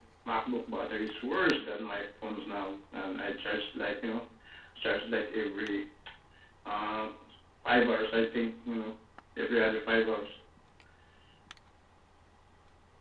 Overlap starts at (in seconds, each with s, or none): none